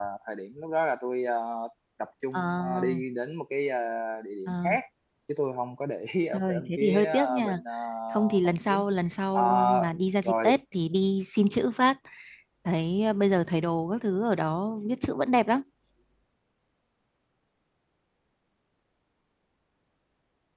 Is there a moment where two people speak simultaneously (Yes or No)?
Yes